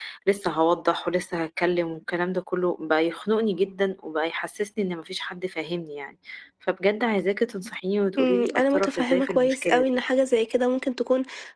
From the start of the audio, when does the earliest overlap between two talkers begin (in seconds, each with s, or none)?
8.2 s